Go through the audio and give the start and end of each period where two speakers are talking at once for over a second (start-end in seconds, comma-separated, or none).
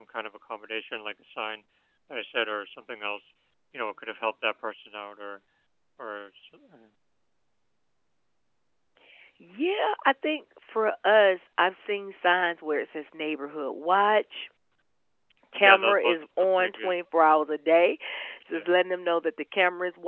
15.6-16.9